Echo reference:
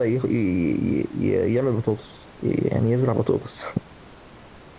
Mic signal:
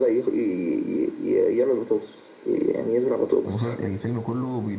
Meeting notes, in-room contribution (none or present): present